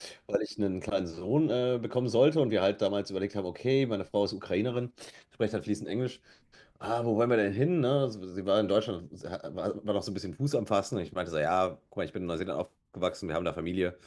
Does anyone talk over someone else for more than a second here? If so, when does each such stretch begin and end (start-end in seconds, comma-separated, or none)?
none